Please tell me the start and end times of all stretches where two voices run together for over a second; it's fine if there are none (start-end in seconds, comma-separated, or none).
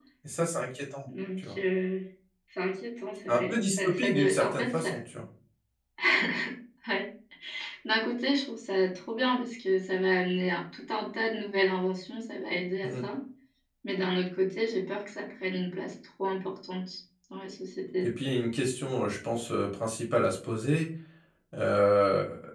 3.3-4.9